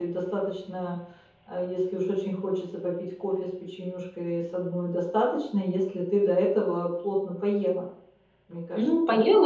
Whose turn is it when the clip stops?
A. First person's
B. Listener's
B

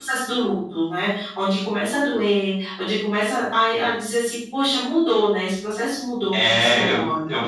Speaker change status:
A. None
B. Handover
B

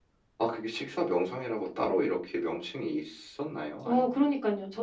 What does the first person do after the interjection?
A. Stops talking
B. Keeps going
A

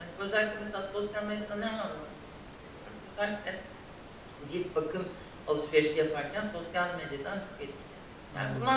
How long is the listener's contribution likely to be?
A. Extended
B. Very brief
B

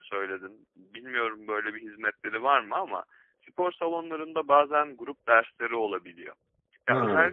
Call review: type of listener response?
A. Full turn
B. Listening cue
B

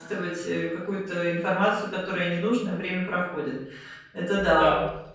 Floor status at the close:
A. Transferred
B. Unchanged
A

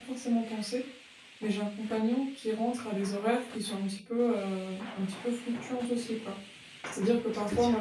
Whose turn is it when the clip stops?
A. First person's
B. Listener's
A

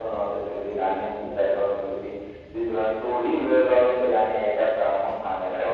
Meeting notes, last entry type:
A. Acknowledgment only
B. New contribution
A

